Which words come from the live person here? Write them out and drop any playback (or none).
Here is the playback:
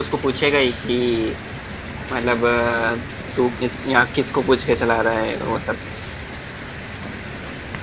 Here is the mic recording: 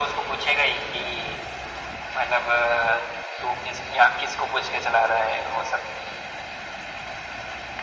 none